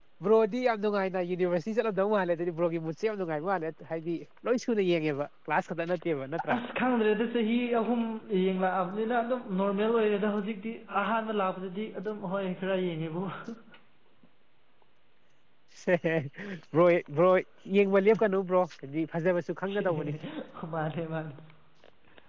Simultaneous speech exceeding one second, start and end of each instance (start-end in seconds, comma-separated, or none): none